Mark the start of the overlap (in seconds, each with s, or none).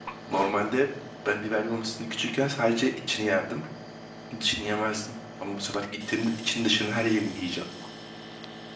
none